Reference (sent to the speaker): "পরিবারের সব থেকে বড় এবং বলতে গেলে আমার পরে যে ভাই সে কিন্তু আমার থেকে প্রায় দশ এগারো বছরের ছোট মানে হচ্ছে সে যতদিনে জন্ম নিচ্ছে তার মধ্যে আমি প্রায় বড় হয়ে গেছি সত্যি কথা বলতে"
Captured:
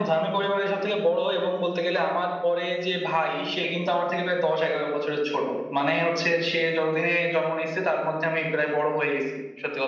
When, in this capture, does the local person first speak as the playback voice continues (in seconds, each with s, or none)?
none